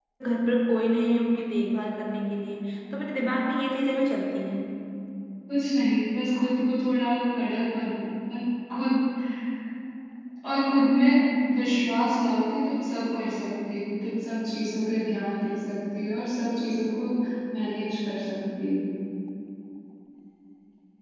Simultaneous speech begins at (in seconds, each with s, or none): none